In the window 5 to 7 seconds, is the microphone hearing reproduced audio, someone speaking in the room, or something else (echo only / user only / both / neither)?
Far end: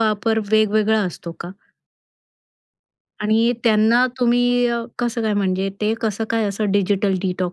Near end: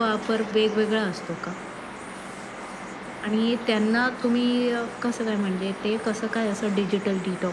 echo only